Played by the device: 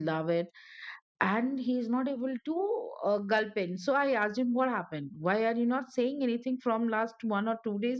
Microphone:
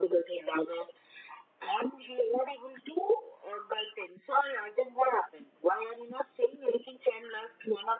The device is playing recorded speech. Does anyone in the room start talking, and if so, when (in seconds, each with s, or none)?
none